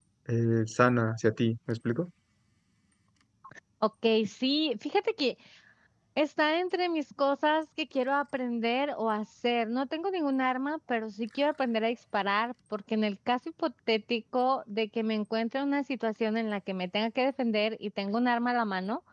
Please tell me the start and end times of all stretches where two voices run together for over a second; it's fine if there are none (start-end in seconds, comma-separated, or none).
none